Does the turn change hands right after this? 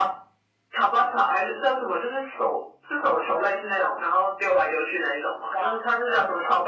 No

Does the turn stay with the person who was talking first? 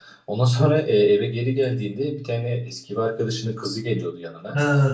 No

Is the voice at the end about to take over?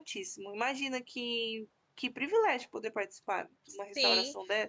Yes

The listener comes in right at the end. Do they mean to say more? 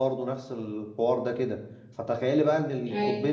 No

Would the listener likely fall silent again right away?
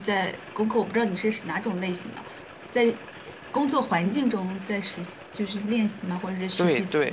No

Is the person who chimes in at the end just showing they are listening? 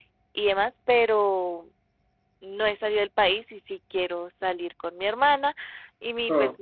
Yes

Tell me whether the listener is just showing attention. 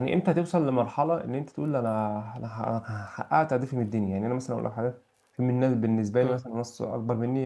Yes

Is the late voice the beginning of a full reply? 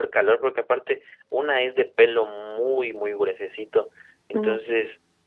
No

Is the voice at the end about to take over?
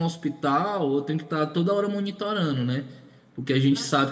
No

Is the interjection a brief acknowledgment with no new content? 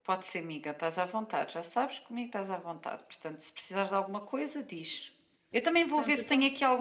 Yes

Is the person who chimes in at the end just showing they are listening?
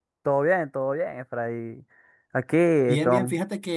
No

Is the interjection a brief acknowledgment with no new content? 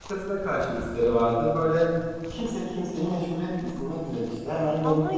No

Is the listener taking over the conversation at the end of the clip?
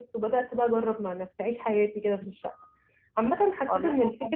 No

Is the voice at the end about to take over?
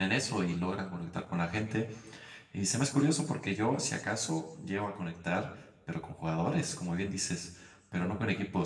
No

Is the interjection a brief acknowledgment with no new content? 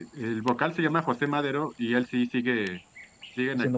Yes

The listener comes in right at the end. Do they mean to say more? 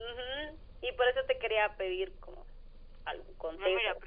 Yes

